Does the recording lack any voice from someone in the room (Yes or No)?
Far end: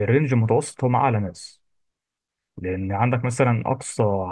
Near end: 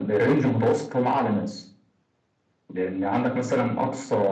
Yes